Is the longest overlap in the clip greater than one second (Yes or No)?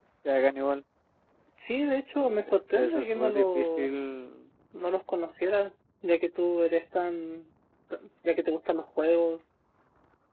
Yes